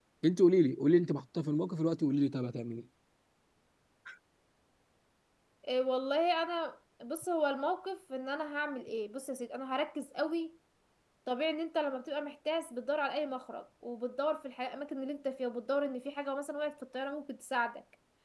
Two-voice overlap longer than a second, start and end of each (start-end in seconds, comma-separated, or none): none